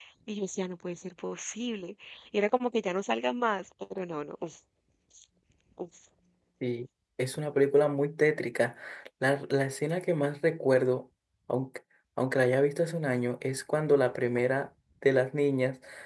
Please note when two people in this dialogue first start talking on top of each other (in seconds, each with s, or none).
none